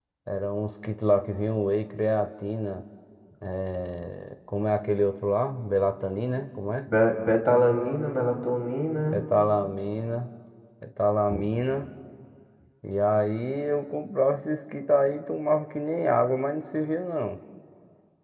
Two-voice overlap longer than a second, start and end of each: none

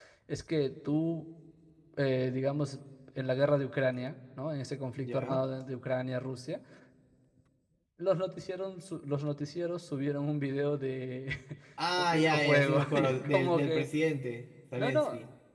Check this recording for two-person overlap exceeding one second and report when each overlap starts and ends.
12.0-13.9

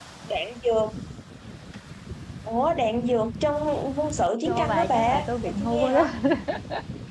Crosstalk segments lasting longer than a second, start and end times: 4.4-6.0

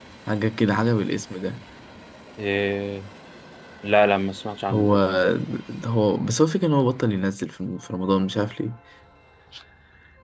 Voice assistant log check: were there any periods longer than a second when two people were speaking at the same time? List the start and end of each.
none

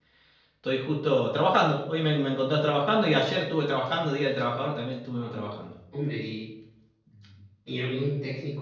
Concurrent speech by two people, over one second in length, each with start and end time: none

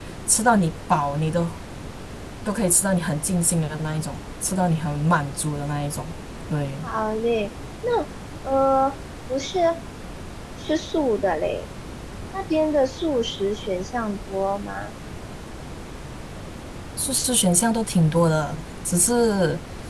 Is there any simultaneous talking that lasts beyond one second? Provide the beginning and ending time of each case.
none

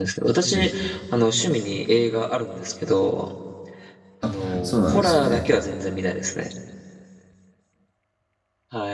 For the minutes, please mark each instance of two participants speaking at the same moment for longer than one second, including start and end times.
4.2-5.5

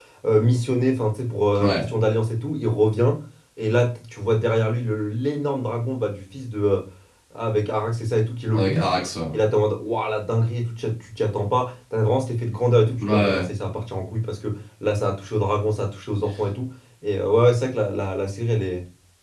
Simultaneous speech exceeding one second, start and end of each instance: none

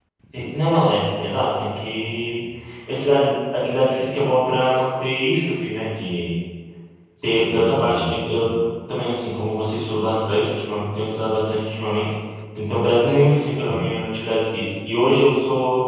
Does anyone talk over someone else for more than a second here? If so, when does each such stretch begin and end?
7.2-8.5

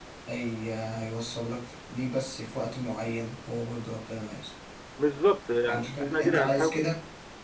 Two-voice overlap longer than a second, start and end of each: 5.7-6.9

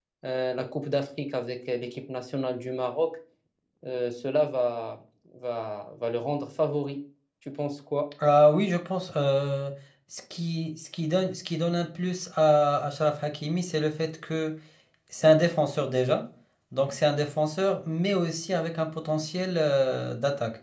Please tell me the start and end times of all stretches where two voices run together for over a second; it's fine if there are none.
none

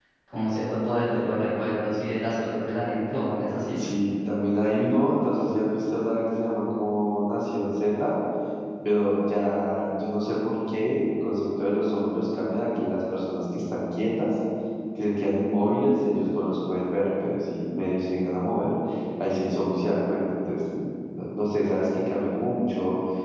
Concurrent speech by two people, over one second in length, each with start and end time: none

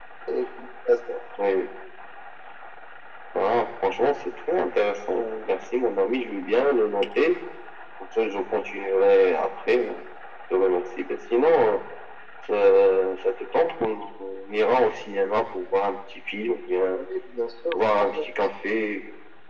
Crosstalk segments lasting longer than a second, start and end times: none

